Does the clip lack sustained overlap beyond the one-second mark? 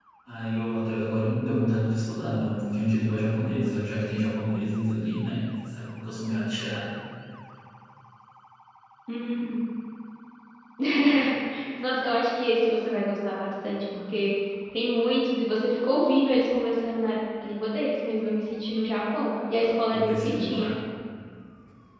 No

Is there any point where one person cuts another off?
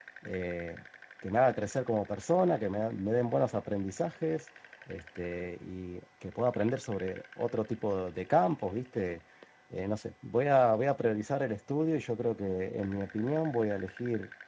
No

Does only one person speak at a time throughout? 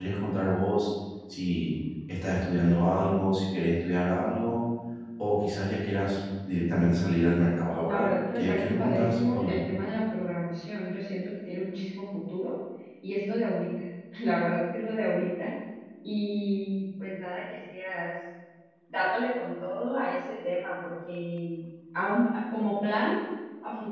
No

